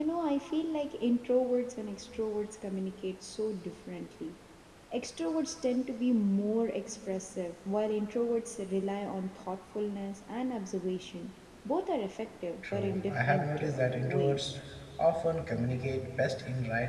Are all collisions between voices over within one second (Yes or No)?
No